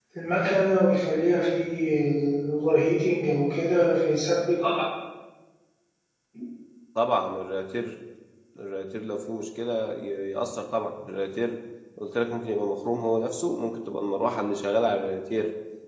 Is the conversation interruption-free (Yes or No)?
Yes